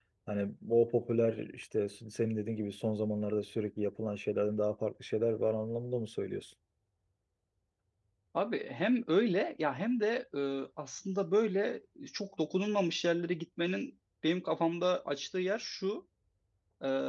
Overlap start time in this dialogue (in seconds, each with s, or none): none